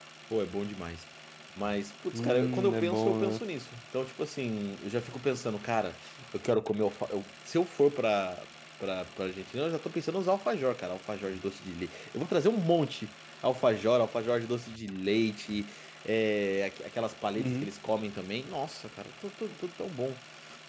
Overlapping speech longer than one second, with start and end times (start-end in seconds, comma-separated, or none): 2.1-3.4